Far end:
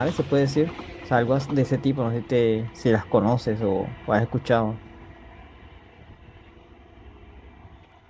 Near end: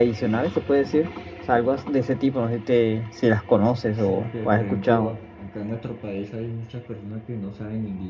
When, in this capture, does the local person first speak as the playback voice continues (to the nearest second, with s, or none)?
4 s